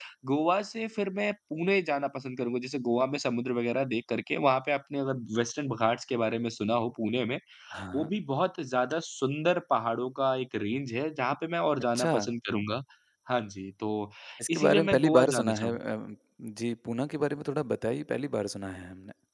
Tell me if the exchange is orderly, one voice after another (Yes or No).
No